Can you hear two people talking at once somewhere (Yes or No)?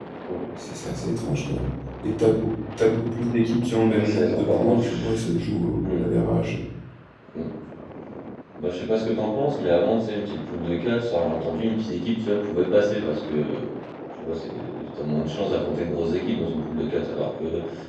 Yes